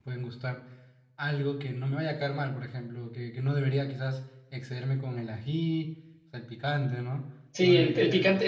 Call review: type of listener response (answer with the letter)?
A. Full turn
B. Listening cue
A